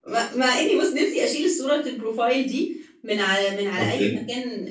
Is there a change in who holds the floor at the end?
No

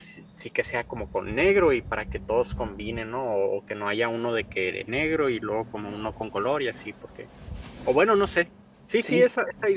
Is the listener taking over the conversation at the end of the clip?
No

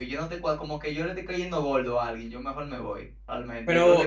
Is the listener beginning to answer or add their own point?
Yes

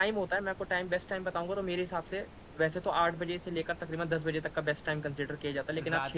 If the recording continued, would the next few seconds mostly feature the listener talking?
No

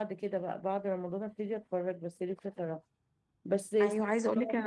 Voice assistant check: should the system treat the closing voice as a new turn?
Yes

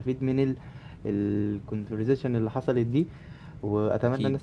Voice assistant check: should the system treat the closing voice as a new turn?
No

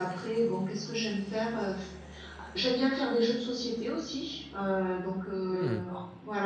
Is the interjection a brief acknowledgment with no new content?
Yes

